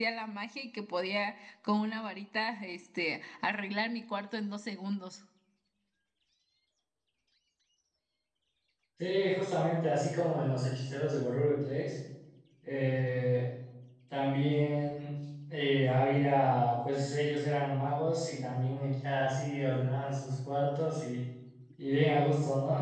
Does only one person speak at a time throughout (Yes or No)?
Yes